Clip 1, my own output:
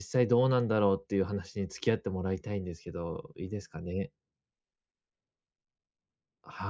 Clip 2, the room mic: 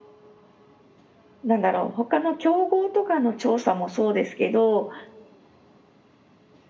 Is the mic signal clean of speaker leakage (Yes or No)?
Yes